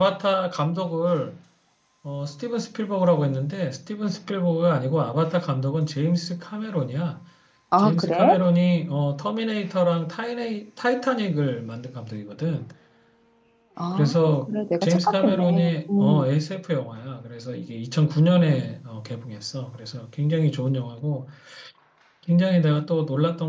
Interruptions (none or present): present